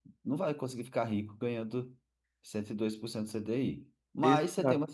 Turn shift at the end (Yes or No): No